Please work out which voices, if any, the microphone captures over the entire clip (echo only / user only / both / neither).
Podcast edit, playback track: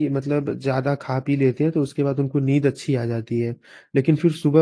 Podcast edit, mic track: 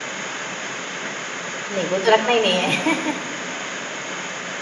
user only